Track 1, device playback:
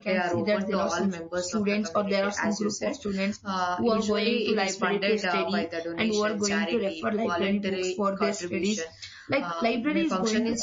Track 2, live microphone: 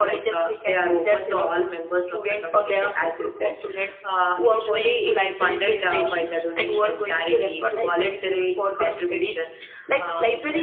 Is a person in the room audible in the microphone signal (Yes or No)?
No